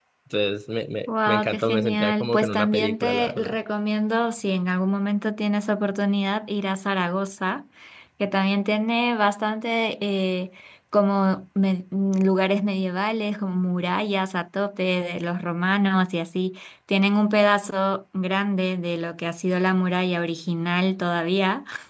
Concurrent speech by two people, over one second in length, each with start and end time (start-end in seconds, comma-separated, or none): 1.1-3.5